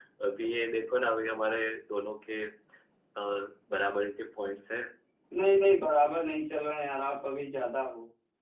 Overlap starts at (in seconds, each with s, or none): none